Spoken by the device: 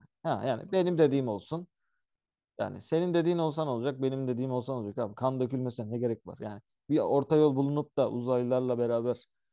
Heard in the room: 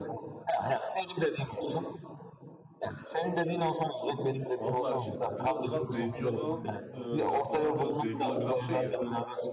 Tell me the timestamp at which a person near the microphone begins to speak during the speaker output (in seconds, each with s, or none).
4.6 s